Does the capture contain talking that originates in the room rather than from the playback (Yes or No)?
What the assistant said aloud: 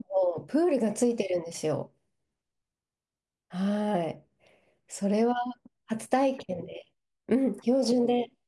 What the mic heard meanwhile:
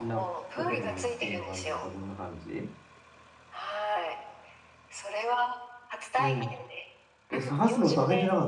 Yes